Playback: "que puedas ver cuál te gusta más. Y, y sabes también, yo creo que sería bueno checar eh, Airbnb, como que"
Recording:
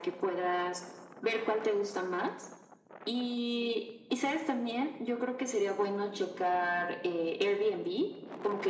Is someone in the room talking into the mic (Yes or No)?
No